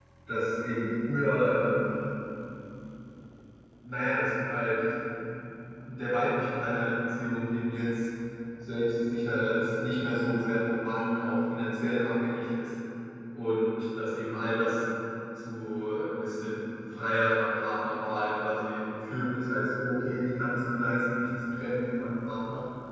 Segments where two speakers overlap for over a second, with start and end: none

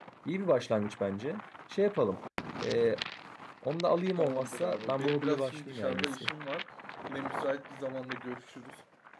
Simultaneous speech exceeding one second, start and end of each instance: 4.2-6.3

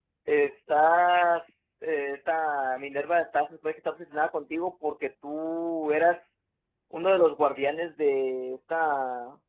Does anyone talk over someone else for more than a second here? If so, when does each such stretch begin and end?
none

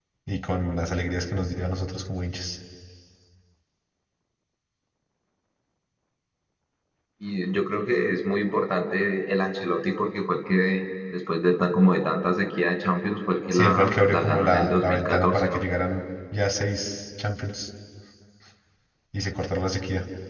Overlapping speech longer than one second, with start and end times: 13.5-15.6

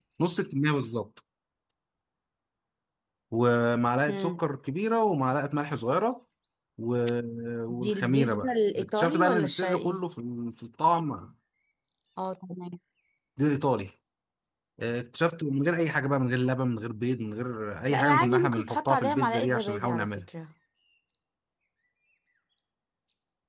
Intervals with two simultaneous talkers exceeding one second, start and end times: 7.7-10.0, 17.9-20.1

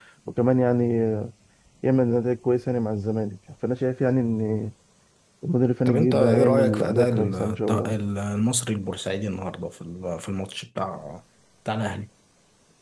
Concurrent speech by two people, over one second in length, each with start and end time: 5.9-7.7

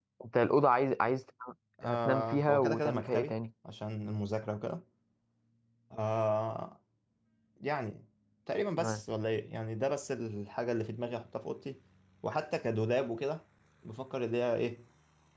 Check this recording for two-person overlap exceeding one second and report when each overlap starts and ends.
2.0-3.3

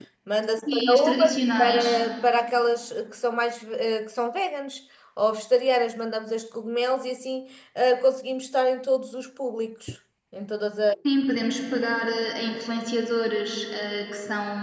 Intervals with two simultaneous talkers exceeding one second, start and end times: 0.7-2.0

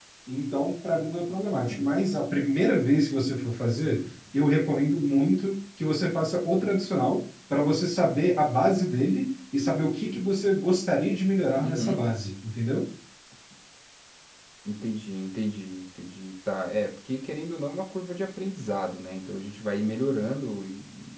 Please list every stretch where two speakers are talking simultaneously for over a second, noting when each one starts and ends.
none

